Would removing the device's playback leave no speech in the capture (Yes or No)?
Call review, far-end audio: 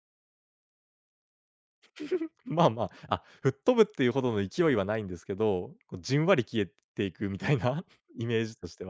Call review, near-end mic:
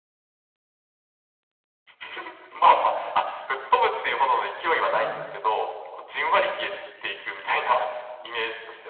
No